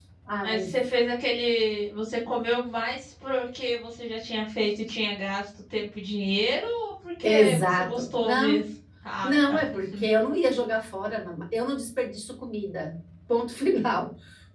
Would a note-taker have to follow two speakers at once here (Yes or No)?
Yes